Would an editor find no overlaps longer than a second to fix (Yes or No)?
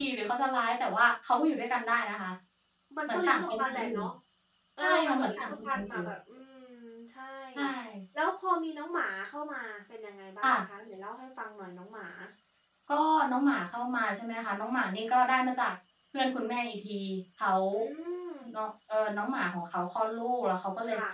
No